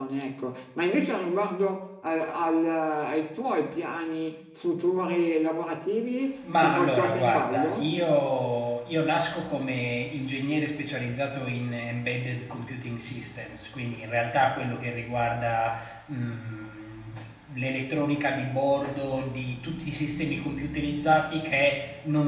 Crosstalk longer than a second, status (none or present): present